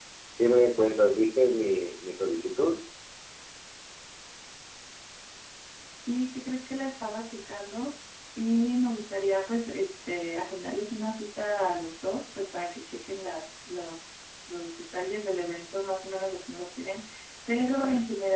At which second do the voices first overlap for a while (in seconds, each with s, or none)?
none